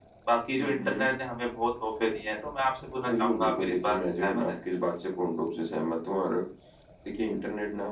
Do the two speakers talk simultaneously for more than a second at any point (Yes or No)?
Yes